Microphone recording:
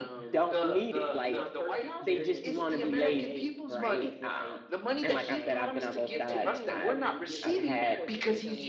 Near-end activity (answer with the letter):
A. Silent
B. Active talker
B